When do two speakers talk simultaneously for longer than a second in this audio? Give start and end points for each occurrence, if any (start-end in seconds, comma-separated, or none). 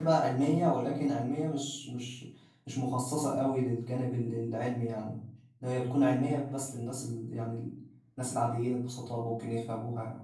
none